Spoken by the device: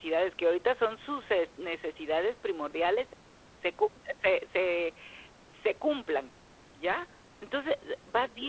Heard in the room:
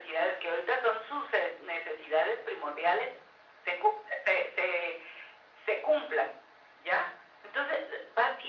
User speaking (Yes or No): No